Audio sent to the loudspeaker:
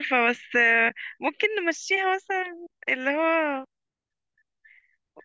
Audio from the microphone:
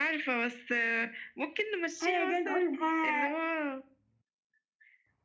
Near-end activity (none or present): present